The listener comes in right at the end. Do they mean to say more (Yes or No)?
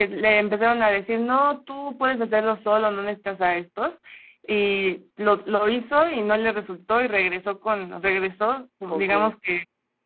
No